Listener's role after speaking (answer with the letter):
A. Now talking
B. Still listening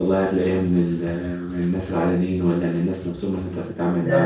A